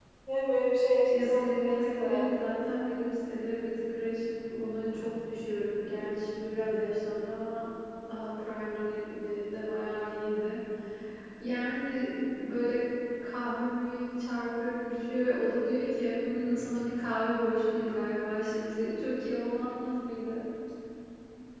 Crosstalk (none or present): present